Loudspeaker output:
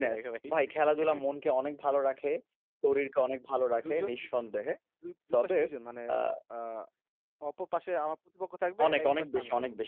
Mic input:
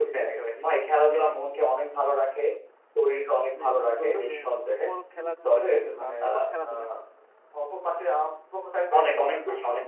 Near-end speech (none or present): present